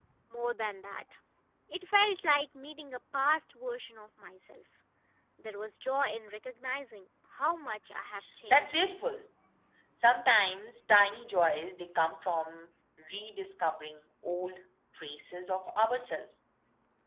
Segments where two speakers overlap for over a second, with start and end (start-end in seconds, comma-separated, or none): none